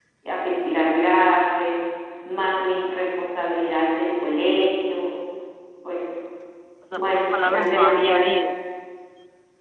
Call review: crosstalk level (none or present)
present